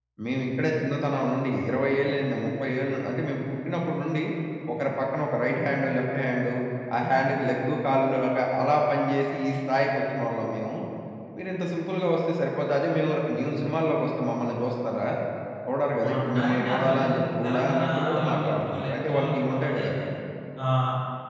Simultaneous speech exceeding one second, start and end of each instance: 16.0-19.9

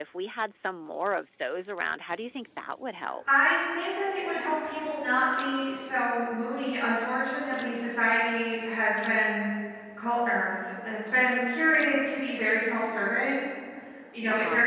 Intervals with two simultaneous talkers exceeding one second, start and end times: none

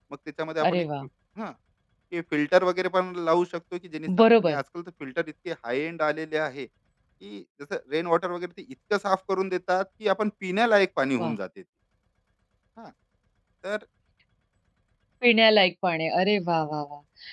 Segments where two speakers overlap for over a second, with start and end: none

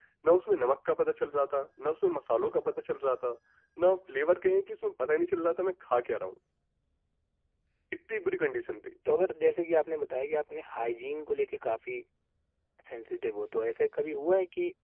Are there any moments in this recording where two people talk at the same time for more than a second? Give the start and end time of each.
none

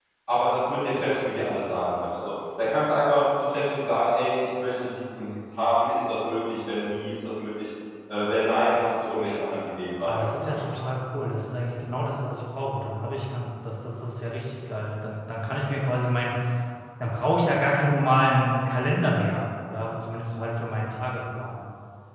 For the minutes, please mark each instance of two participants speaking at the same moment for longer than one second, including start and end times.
none

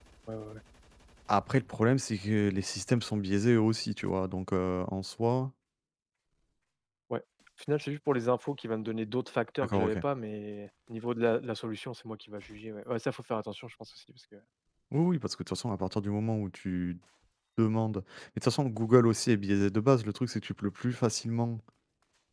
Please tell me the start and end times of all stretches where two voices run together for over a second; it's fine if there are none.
none

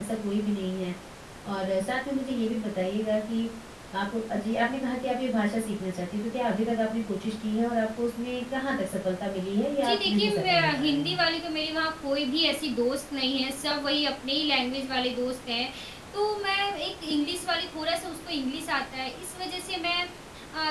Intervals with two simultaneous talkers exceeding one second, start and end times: 9.8-11.2

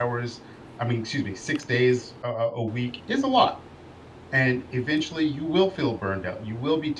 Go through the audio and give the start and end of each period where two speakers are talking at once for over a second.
none

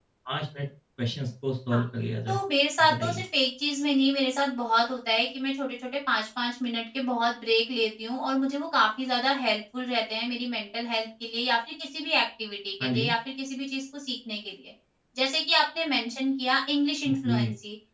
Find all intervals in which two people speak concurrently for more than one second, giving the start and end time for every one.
none

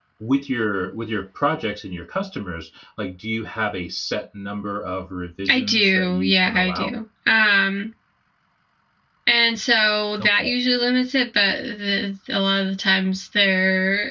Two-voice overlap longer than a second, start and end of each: 5.5-7.0

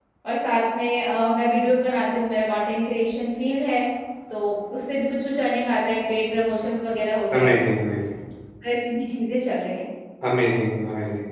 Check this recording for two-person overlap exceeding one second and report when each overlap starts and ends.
none

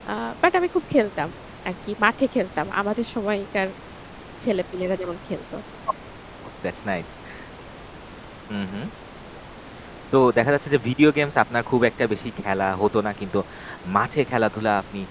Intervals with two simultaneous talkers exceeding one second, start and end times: none

